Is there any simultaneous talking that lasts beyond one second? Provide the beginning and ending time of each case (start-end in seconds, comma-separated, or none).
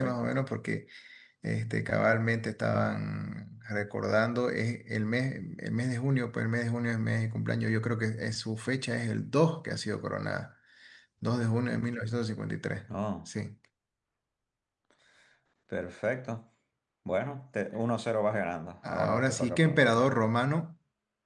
18.9-20.1